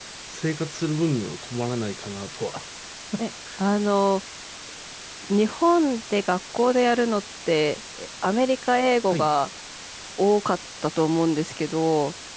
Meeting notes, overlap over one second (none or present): none